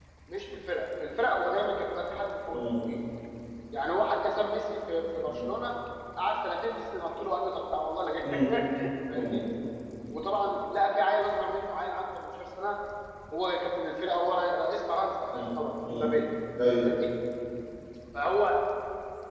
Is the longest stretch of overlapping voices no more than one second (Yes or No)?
Yes